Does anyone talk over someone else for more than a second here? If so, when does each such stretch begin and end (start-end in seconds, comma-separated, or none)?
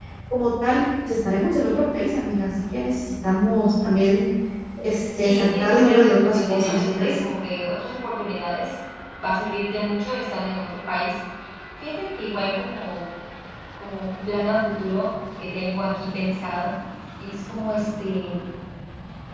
5.2-7.2